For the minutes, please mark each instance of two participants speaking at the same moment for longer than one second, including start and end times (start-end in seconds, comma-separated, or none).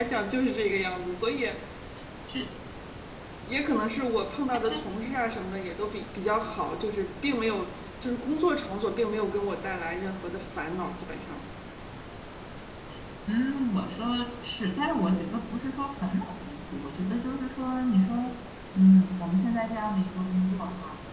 none